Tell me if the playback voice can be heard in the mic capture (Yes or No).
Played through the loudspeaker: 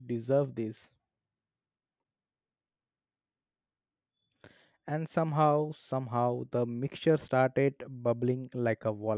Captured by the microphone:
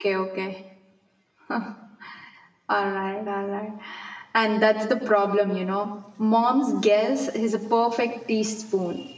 No